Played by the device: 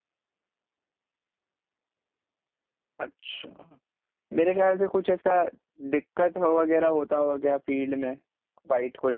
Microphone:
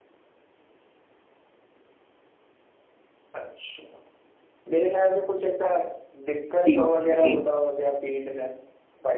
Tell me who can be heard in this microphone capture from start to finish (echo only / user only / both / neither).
both